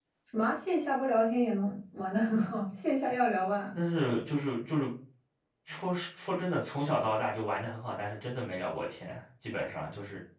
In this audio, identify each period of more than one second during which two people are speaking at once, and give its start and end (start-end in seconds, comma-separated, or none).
none